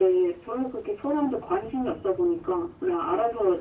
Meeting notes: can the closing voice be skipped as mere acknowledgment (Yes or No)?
Yes